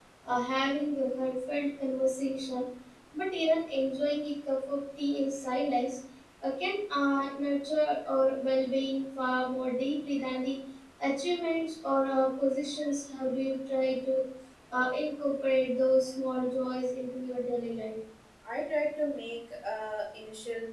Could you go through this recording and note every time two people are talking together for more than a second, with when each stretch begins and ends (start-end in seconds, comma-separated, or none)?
none